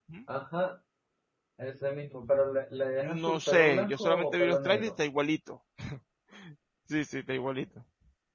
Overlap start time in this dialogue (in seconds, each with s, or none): 3.0 s